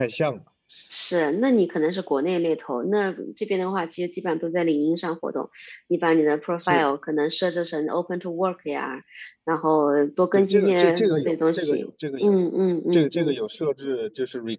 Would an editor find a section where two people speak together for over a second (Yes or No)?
Yes